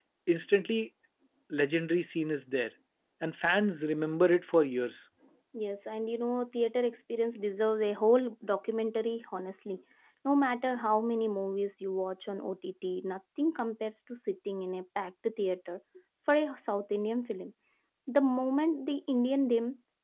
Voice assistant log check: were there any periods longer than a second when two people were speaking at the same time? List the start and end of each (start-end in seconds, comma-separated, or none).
none